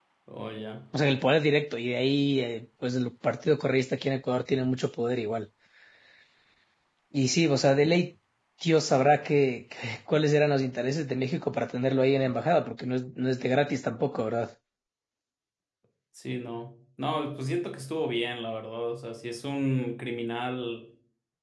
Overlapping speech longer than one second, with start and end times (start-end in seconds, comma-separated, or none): none